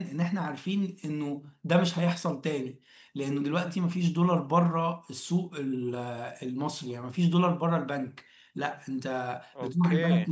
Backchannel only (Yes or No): Yes